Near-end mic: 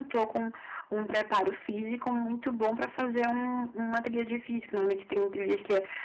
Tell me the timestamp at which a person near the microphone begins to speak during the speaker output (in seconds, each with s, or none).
none